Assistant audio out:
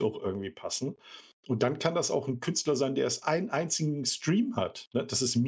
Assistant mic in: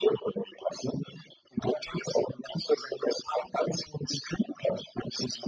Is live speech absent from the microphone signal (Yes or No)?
Yes